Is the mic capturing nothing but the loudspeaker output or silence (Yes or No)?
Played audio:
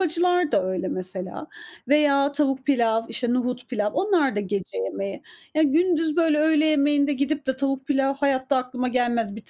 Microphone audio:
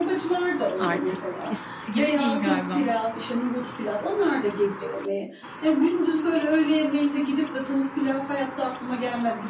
No